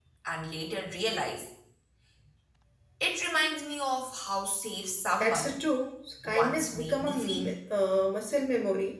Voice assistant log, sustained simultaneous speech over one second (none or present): present